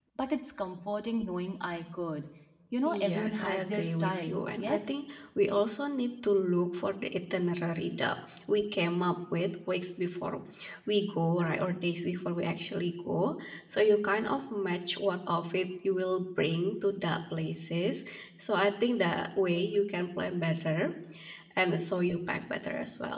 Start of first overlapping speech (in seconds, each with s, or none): 2.9 s